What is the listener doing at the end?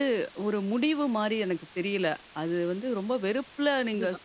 listening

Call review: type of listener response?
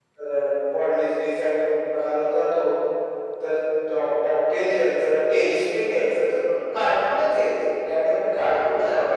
listening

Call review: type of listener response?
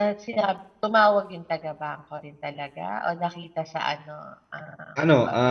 taking over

